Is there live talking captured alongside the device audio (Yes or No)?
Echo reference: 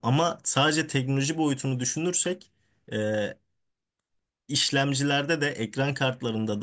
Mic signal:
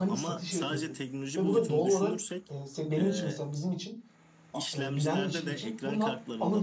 Yes